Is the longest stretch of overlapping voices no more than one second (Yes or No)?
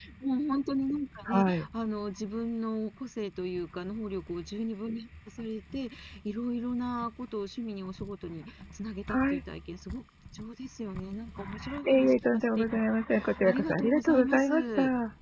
No